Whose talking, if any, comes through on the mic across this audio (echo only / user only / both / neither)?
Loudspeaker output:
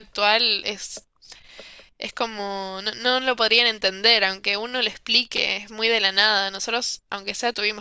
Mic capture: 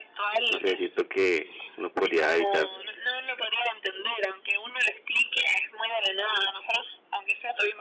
both